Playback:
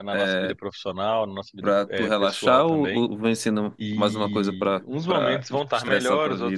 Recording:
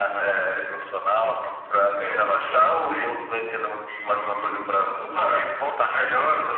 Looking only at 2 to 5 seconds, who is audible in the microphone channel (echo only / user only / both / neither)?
echo only